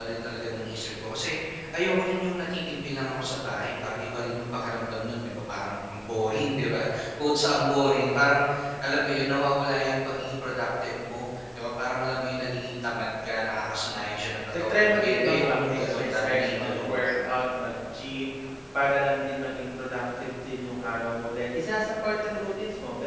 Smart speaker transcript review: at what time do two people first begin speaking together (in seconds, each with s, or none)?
14.5 s